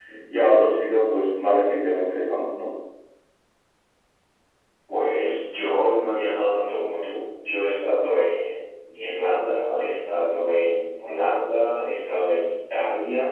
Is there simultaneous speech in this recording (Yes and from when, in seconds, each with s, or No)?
No